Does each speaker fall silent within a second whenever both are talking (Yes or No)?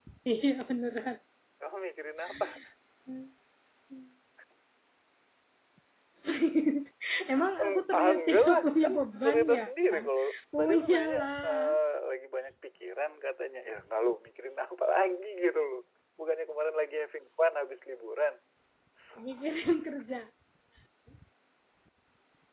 No